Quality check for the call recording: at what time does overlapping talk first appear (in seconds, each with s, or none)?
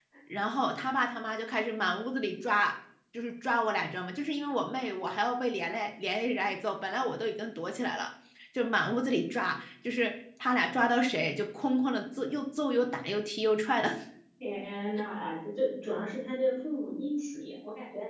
none